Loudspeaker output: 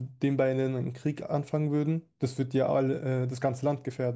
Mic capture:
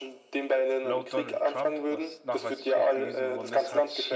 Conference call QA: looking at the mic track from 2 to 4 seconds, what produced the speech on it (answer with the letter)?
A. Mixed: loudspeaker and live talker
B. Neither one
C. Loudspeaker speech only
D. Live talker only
A